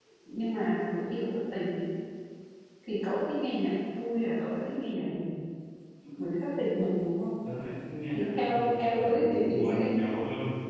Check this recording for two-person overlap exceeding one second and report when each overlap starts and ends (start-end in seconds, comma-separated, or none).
8.1-9.9